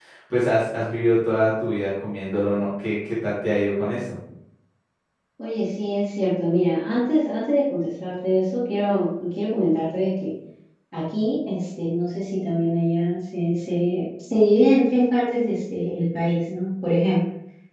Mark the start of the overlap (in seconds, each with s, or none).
none